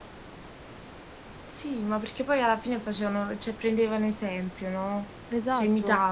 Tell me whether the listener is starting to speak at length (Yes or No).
Yes